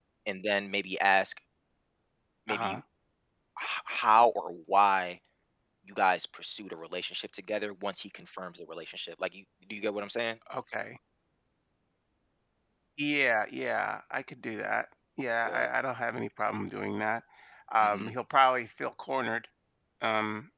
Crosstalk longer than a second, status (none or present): none